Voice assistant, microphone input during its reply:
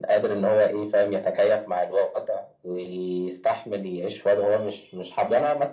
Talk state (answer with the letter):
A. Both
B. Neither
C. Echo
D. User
C